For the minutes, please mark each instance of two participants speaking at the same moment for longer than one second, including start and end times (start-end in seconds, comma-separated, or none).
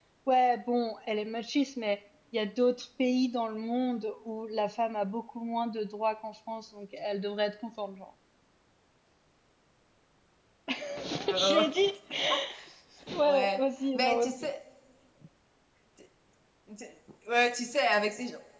13.2-14.5